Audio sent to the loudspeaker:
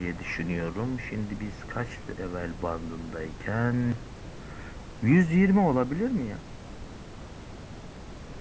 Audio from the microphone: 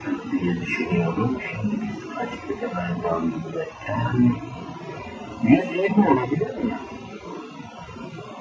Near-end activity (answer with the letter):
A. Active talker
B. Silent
B